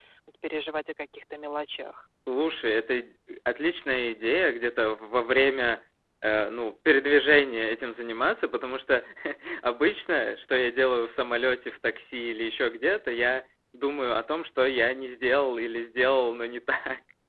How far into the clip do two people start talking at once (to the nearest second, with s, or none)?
none